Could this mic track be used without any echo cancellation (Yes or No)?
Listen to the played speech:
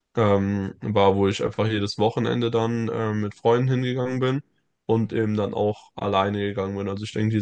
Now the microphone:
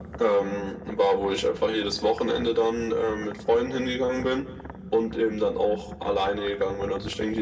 No